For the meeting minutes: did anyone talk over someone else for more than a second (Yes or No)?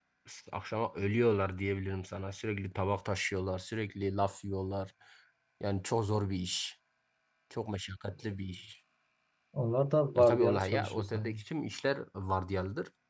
Yes